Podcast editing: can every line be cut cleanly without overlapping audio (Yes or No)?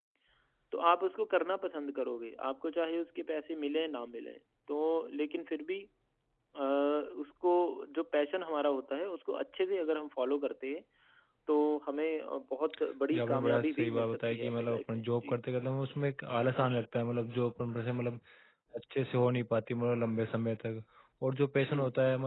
No